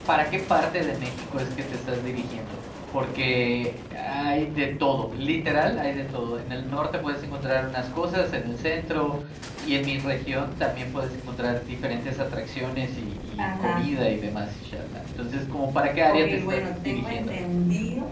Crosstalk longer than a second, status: present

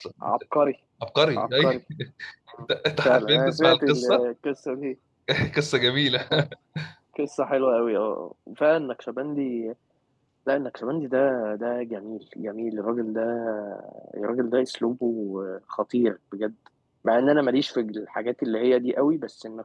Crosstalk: present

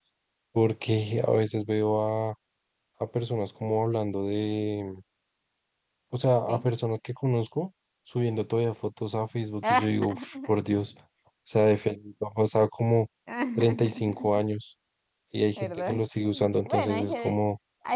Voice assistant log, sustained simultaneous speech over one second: present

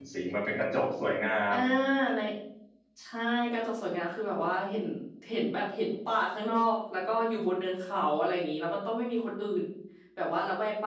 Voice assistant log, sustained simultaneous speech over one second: none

